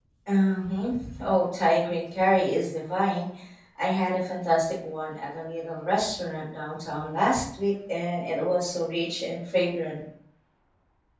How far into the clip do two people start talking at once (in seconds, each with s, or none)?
none